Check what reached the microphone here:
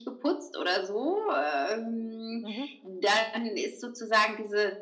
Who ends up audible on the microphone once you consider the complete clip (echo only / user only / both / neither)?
both